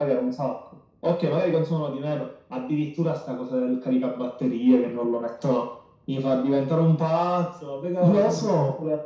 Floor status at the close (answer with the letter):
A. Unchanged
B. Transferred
A